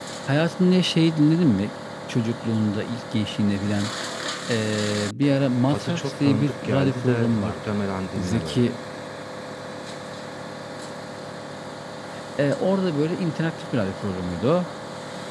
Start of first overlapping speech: 6 s

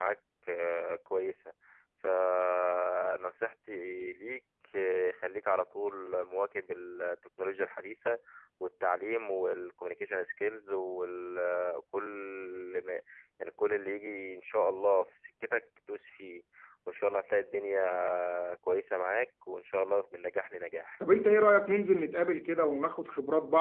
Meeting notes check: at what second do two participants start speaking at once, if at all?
none

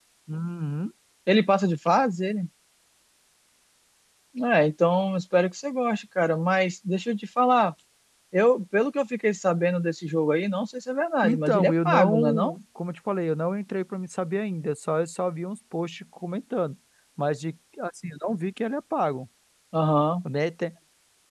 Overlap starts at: 11 s

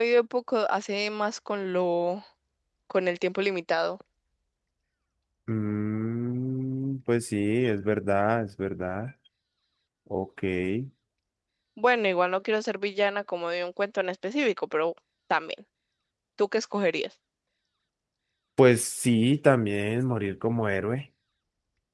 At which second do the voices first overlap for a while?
none

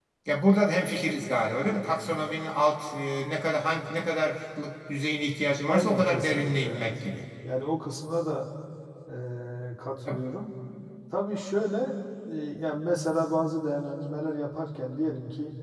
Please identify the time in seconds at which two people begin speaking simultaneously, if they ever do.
6 s

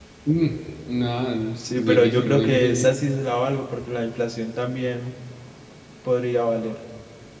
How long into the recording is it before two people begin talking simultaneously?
2 s

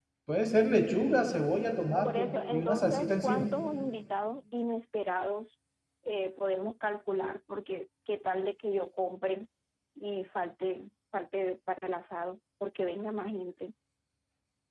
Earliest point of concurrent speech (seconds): 2 s

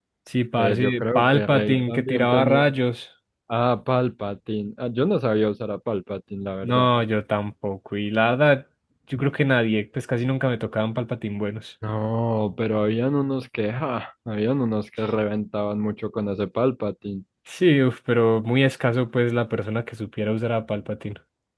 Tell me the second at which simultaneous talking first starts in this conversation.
1 s

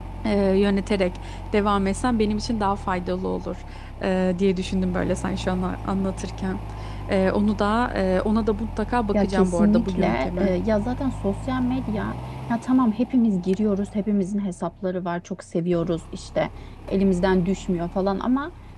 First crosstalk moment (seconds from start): 9 s

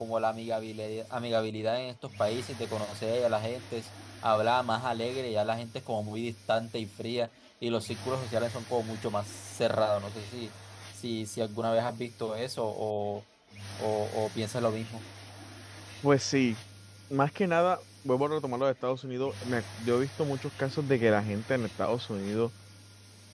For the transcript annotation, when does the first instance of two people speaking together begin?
none

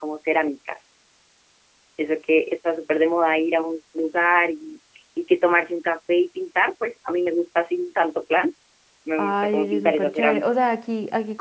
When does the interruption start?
9 s

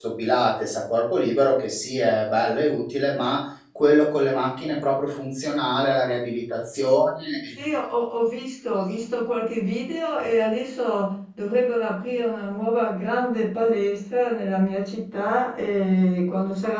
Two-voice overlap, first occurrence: none

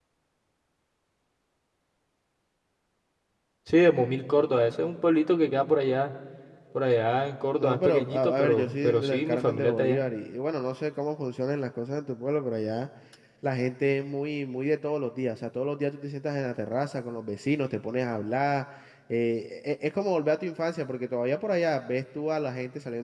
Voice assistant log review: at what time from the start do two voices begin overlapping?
8 s

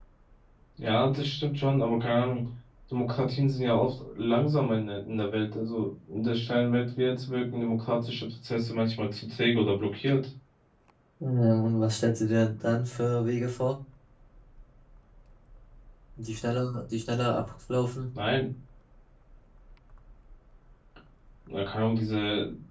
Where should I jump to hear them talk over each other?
none

